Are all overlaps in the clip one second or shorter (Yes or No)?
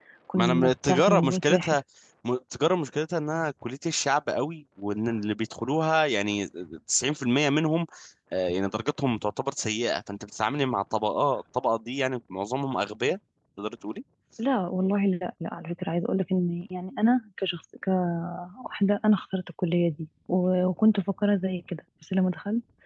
No